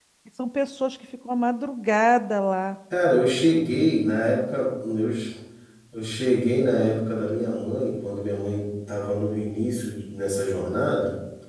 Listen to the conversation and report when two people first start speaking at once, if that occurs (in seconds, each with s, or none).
none